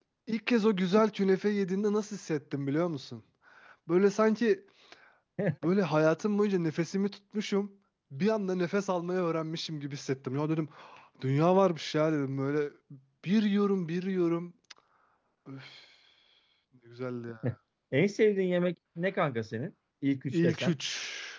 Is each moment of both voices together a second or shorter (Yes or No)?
Yes